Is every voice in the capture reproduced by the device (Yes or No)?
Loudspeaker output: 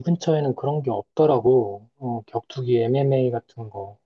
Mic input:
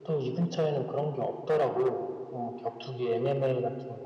Yes